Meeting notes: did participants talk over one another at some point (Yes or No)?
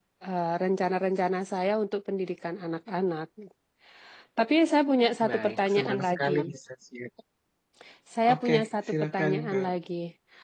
Yes